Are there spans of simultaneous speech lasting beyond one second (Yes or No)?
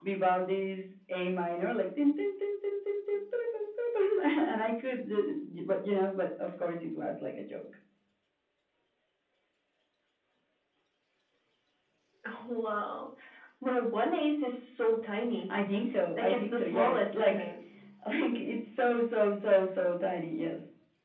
Yes